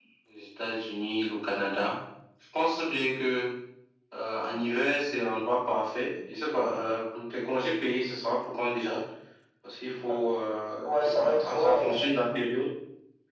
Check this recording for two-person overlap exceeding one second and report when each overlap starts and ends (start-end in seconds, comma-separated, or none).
10.8-12.4